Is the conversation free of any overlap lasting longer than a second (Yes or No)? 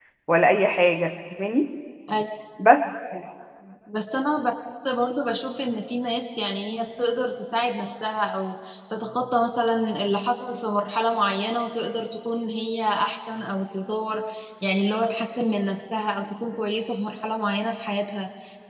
Yes